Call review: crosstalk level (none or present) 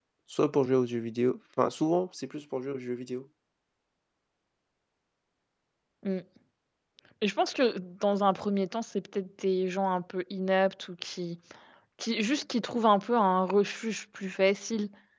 none